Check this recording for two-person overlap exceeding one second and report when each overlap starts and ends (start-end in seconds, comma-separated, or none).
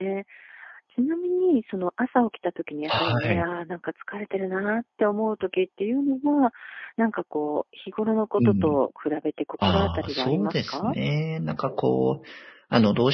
9.6-10.9